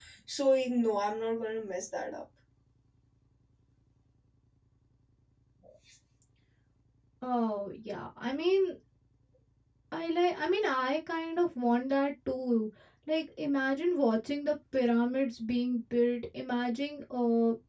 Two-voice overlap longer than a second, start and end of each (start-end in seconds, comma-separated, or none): none